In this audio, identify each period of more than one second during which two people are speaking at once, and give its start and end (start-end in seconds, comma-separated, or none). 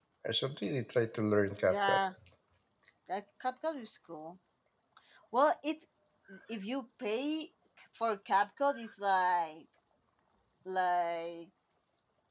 none